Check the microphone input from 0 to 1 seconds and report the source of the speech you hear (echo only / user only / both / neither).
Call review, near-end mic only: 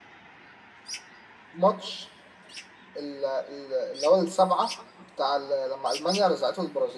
neither